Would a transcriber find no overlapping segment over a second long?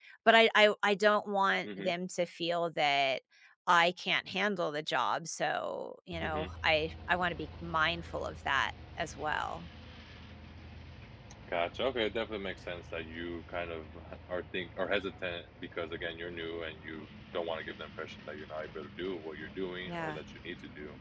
Yes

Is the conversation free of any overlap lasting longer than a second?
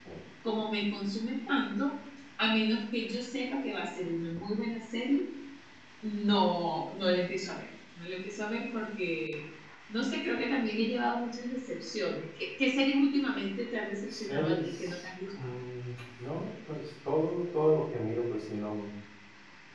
No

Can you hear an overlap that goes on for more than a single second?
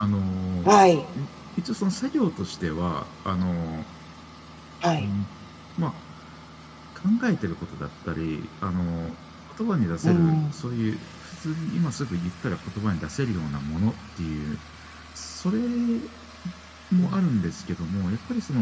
No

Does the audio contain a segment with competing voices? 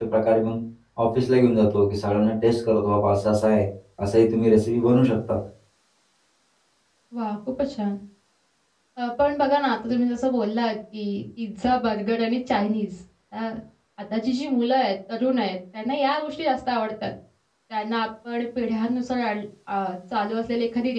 No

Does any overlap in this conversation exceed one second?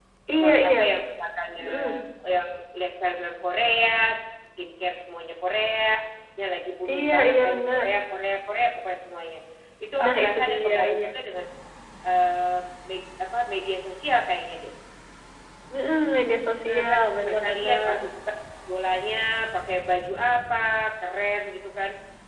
Yes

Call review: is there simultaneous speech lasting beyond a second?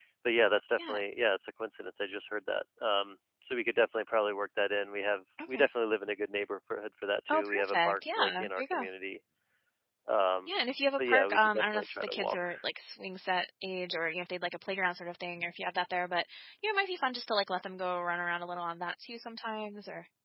Yes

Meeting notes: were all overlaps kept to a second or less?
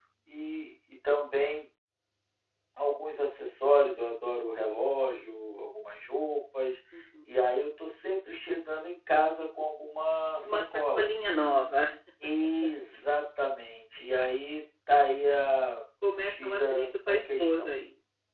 No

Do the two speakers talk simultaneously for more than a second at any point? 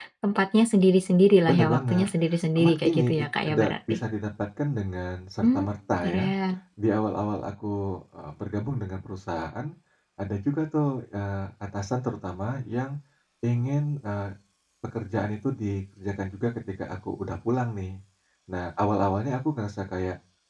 Yes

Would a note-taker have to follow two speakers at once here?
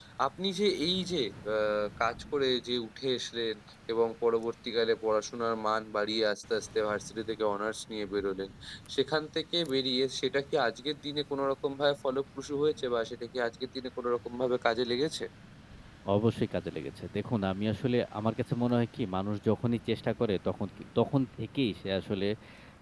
No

